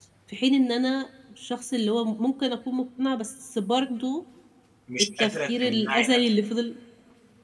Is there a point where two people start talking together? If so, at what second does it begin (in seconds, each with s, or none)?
5.0 s